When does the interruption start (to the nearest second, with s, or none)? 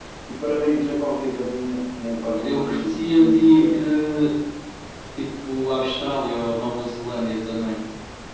2 s